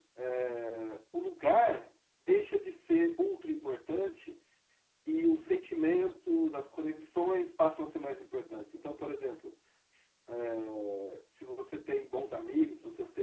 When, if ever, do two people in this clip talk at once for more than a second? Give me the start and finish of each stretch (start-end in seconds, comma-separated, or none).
none